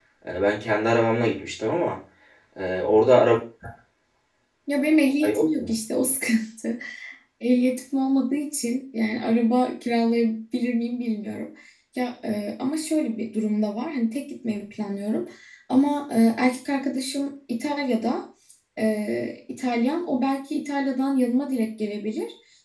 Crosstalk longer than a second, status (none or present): none